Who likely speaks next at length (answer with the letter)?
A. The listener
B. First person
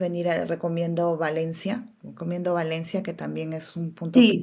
A